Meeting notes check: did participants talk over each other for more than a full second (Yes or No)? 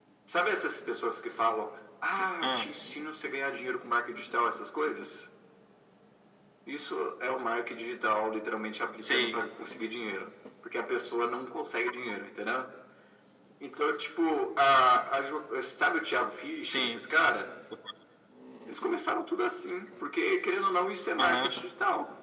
No